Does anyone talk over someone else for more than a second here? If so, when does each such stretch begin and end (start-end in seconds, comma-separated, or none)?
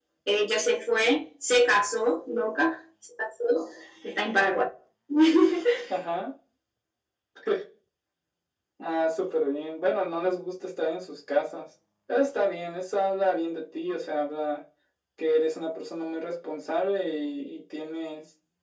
none